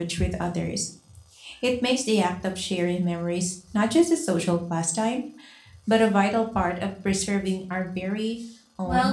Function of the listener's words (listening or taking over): taking over